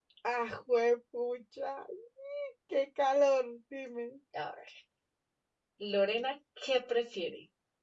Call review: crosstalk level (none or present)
none